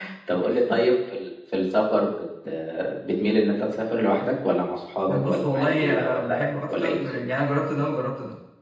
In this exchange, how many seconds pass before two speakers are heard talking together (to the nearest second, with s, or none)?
5 s